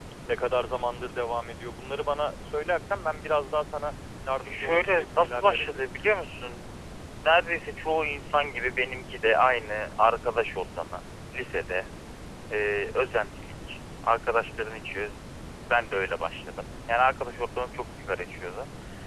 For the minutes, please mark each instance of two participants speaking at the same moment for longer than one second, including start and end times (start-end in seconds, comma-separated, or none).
4.4-5.8